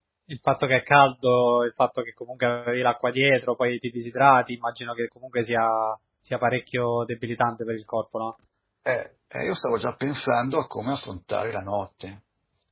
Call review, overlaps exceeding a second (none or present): none